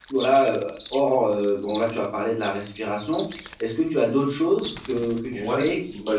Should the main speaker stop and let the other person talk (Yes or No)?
Yes